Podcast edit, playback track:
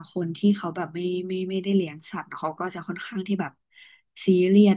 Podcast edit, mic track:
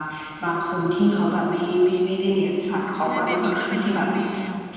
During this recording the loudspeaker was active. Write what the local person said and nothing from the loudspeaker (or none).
ใช่เบบีก็เป็นทาสแมว